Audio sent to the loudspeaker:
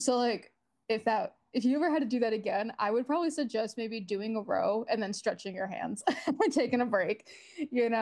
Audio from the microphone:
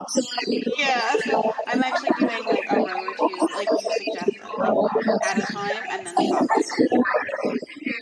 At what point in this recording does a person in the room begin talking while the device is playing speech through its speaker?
1 s

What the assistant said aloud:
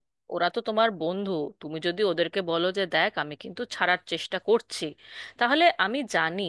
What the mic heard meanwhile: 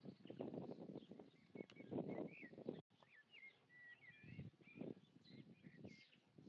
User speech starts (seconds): none

